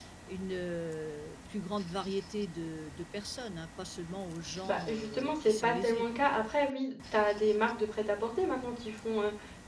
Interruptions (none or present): present